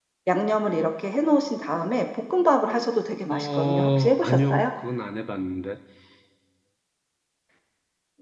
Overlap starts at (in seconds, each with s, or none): 3.3 s